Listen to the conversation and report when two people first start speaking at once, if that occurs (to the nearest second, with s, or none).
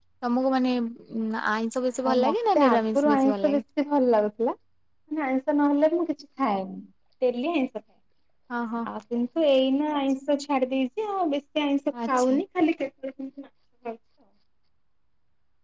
2 s